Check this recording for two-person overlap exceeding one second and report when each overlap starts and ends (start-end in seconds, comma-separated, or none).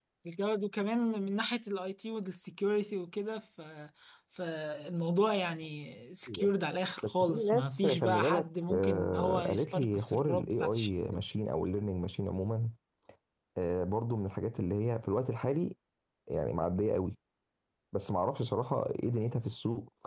7.0-11.2